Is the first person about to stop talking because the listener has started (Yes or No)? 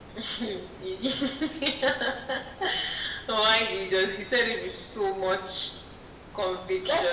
Yes